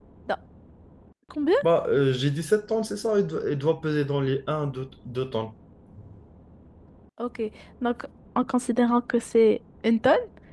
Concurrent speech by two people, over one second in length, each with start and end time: none

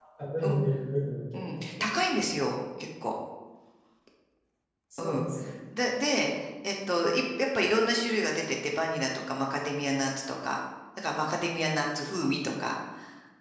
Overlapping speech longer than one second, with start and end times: none

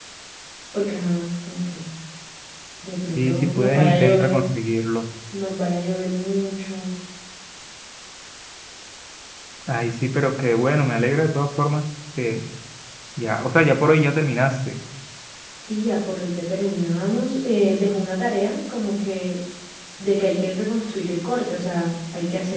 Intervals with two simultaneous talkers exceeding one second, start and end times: 3.2-4.4

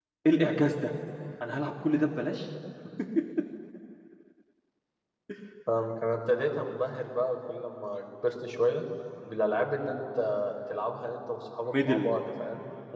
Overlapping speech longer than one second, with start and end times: none

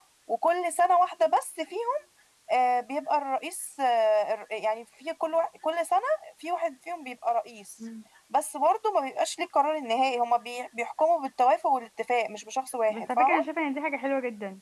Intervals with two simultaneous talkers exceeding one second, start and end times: none

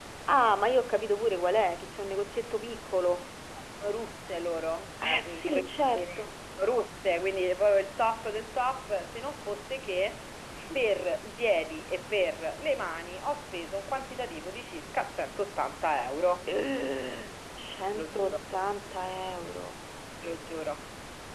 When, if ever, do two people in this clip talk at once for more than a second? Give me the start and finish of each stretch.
5.0-6.3

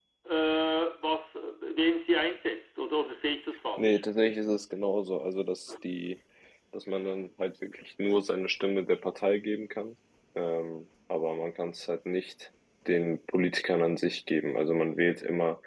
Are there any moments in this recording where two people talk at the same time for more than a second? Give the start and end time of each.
none

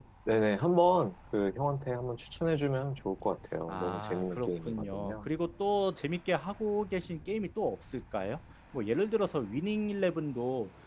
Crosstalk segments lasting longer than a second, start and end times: 3.7-5.3

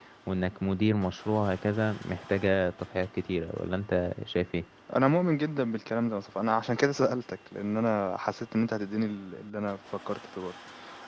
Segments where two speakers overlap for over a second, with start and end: none

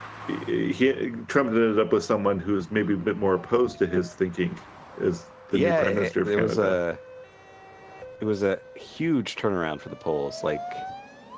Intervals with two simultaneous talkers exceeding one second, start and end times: 5.5-6.8

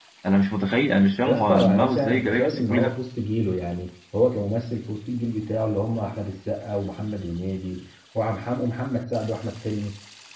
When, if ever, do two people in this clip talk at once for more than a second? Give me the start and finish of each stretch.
1.2-3.0

